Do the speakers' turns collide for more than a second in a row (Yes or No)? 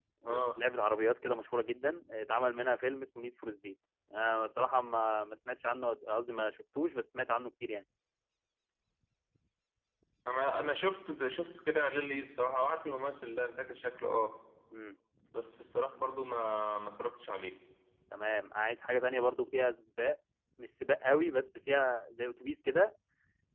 No